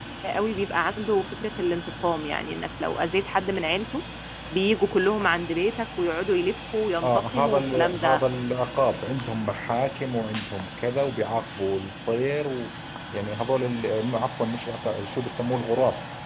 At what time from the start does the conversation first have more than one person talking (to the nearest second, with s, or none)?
7 s